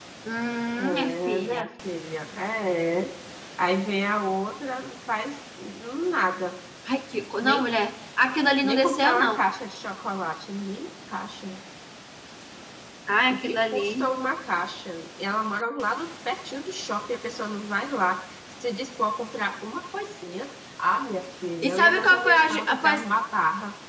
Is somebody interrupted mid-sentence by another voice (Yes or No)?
Yes